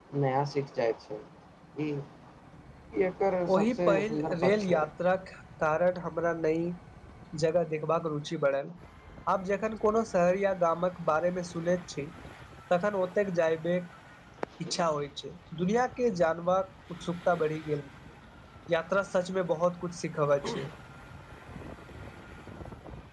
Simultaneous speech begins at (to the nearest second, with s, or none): 3 s